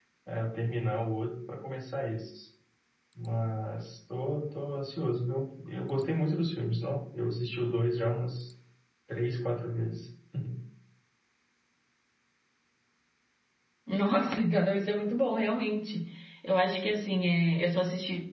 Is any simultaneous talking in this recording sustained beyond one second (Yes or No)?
No